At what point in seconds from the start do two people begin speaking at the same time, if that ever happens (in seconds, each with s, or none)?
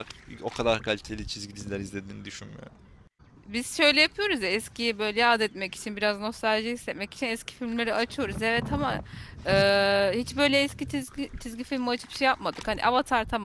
none